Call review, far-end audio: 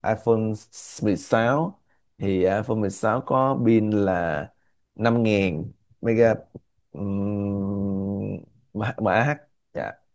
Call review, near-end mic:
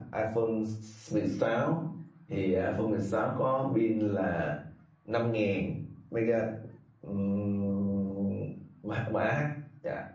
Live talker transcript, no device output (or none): none